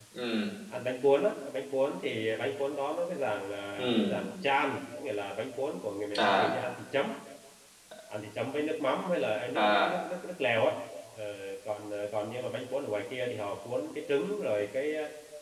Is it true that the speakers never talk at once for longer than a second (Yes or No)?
Yes